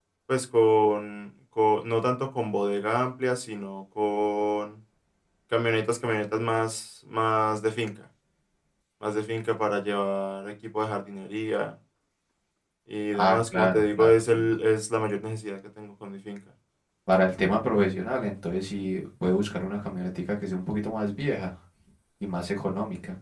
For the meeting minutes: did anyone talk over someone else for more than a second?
Yes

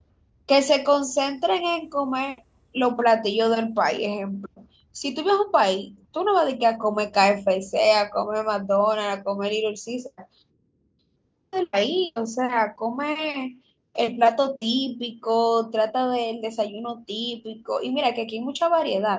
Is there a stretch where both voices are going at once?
No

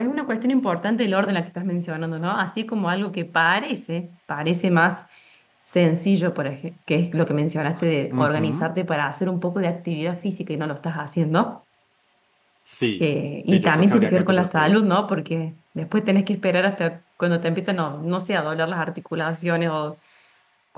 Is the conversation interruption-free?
No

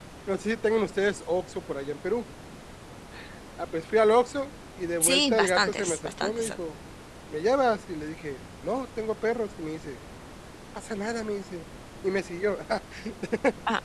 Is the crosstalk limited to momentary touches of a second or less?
No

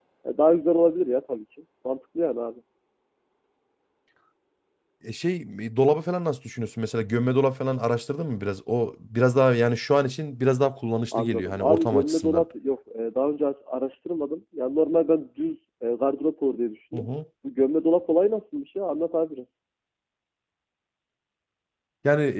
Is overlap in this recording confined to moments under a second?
No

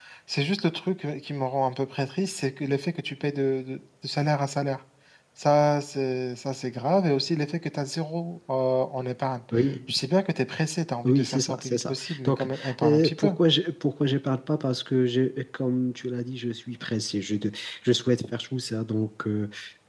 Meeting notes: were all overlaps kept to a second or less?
No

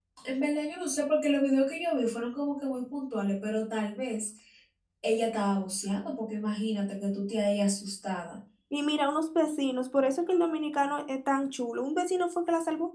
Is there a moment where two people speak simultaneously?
No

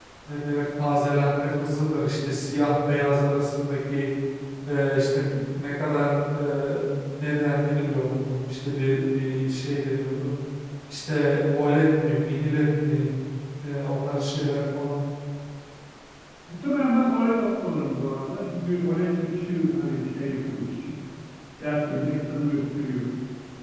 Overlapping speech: No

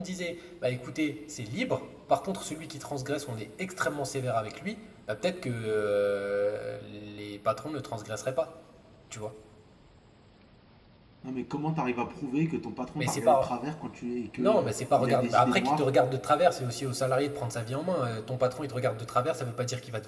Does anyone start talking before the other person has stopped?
Yes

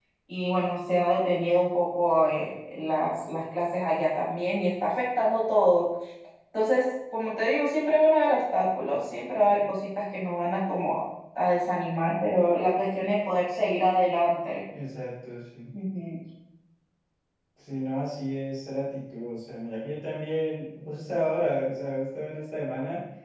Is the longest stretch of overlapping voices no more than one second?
Yes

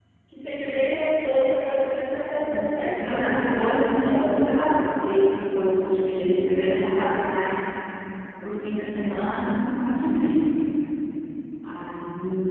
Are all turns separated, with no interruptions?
No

